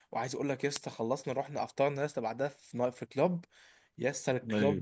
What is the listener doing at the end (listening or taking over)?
listening